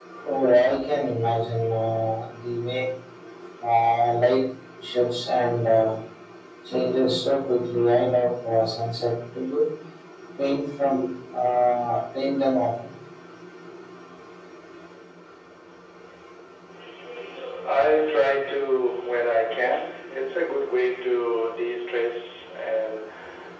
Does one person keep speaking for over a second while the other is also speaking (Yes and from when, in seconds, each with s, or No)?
No